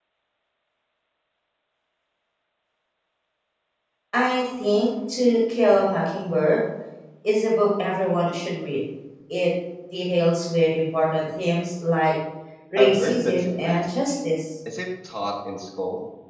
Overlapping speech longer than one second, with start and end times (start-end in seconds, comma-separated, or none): 12.8-14.0